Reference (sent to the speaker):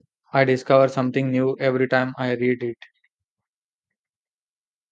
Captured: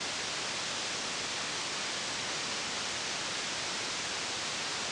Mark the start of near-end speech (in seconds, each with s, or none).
none